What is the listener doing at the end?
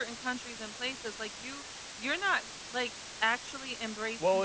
taking over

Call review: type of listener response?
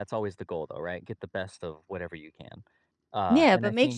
taking over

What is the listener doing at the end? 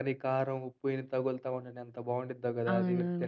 taking over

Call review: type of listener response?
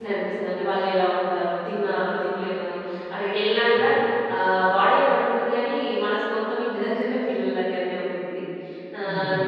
listening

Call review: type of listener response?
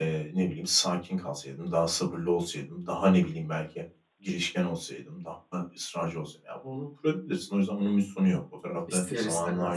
listening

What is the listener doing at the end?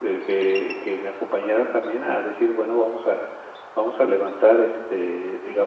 listening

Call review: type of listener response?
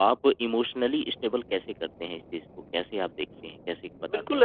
taking over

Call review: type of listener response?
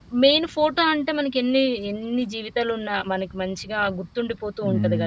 taking over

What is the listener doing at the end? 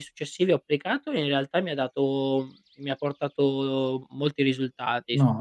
taking over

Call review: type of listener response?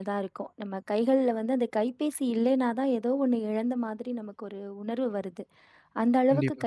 listening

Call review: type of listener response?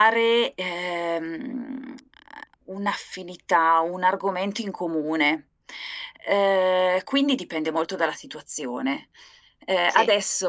listening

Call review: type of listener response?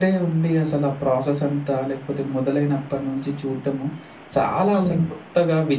listening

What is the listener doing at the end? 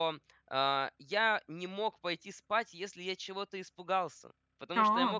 listening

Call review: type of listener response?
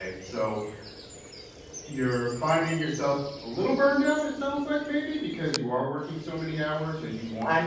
taking over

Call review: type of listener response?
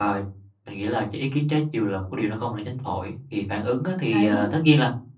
listening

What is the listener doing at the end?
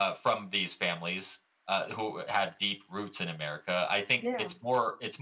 listening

